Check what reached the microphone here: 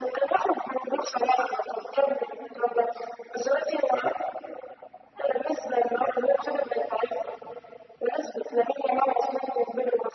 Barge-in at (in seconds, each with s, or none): none